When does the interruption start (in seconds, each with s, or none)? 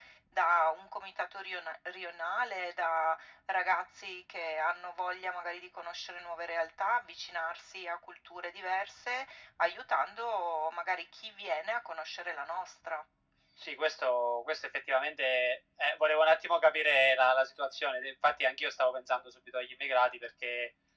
none